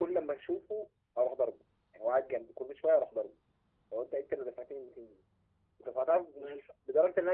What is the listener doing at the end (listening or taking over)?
listening